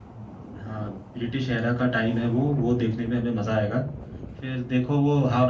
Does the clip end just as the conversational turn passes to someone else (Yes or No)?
No